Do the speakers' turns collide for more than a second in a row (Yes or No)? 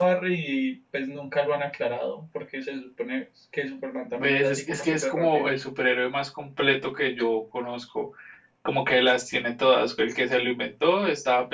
Yes